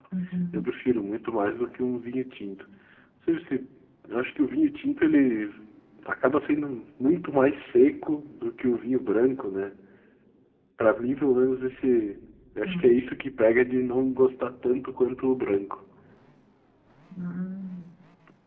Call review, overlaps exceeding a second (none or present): none